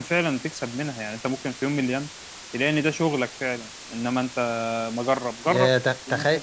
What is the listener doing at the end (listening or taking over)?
taking over